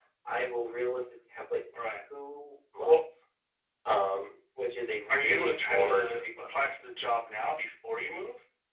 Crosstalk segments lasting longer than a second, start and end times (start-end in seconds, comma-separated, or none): 5.1-6.5